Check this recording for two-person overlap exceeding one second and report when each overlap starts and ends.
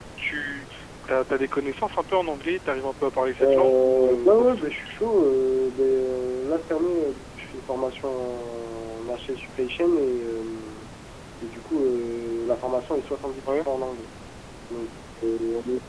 3.4-4.7

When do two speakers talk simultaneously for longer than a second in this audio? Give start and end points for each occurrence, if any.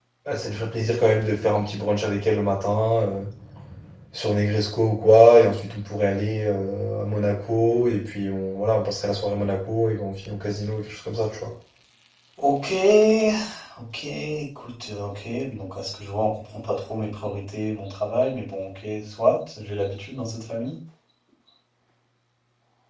none

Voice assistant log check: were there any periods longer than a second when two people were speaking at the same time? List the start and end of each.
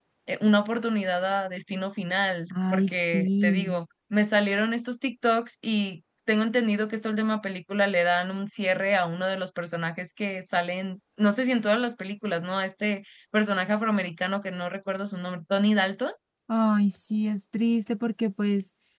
2.5-3.8

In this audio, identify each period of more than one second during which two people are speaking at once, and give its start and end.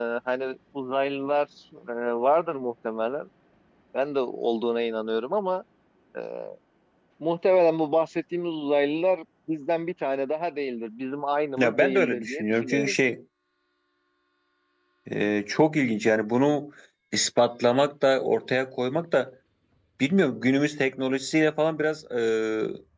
11.6-12.9

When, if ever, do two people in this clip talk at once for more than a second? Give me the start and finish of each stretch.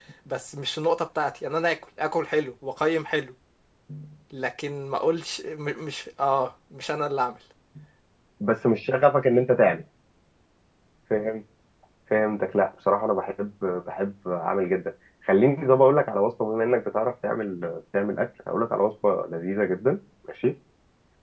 none

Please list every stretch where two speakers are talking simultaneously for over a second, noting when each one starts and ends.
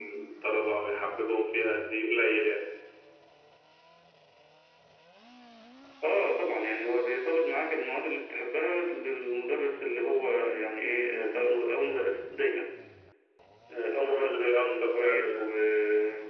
14.0-15.4

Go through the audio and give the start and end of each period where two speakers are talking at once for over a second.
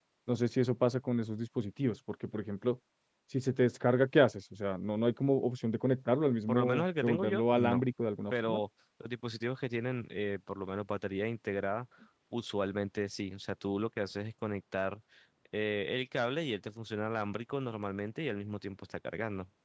6.5-7.8

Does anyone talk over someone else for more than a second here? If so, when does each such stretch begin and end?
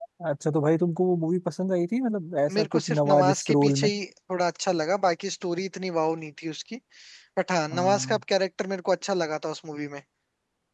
2.5-3.9

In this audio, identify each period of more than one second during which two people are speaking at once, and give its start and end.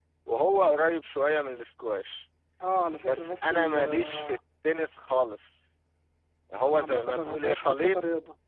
3.0-4.4, 6.7-8.0

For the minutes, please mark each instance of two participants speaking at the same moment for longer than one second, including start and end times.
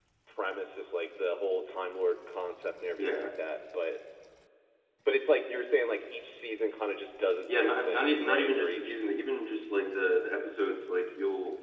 7.5-9.0

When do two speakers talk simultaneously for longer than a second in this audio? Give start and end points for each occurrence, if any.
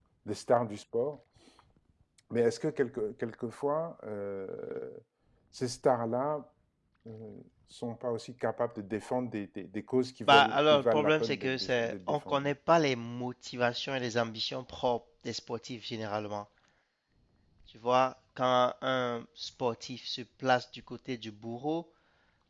10.3-12.5

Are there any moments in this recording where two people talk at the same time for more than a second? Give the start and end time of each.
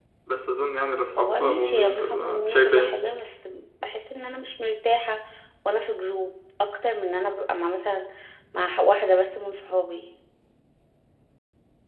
1.2-2.9

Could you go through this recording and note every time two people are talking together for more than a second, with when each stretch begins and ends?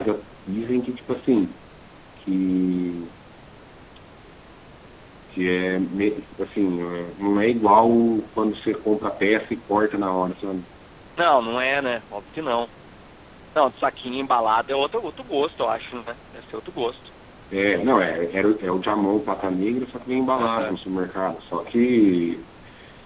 none

